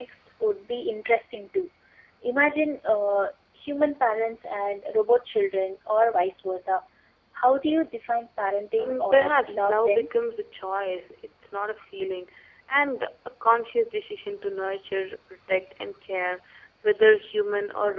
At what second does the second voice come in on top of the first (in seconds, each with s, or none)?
8.8 s